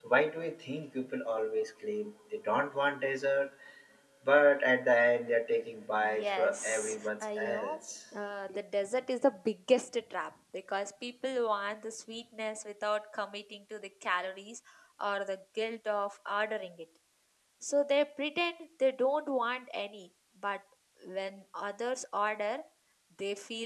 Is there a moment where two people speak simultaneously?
Yes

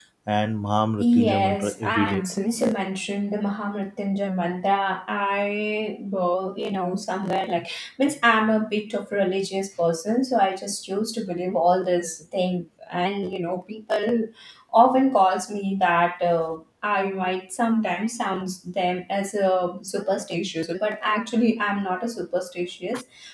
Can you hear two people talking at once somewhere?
Yes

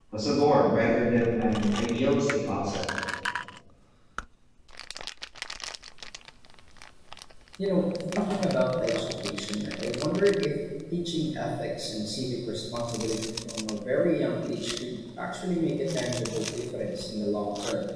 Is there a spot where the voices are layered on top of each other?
No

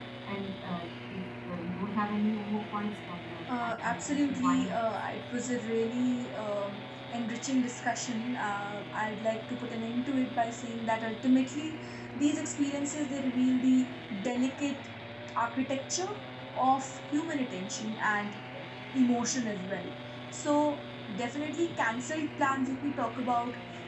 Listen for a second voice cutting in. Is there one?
Yes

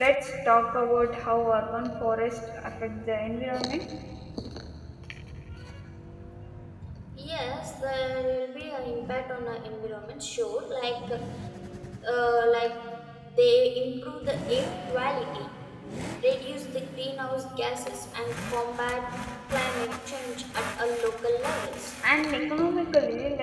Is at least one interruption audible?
No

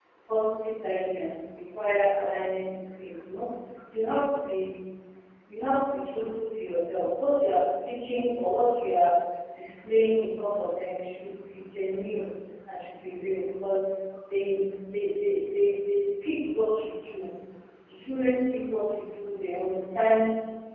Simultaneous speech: No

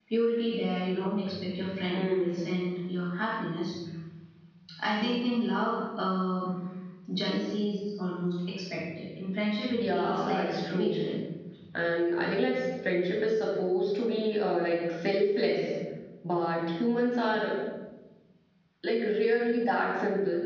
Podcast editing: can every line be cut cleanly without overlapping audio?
No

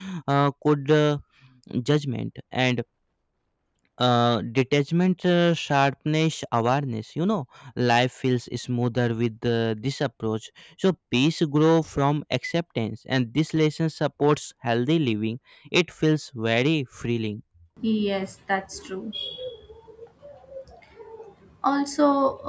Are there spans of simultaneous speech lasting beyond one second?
No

